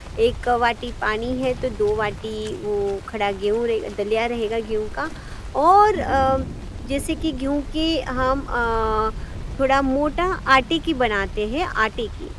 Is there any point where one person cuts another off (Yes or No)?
No